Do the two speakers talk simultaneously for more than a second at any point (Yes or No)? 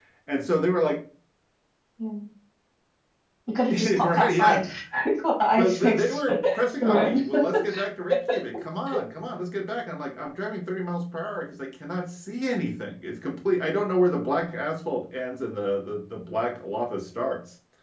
Yes